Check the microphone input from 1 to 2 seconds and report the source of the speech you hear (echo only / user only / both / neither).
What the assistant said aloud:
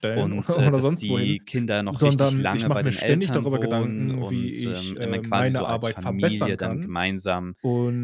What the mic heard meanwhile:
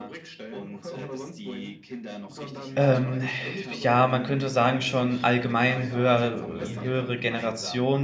echo only